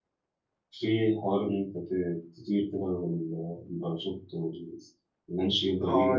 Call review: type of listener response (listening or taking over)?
taking over